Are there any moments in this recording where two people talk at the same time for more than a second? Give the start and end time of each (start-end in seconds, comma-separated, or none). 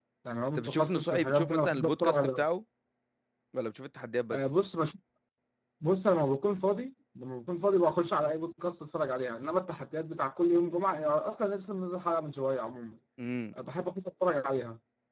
0.6-2.4